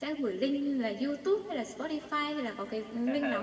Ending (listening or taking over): taking over